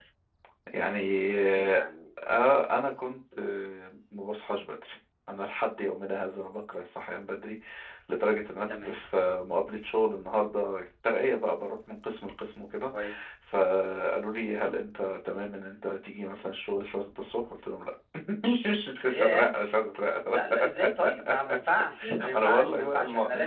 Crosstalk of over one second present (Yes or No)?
Yes